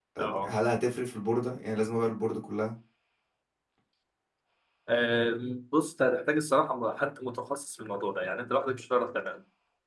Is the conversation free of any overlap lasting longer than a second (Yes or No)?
Yes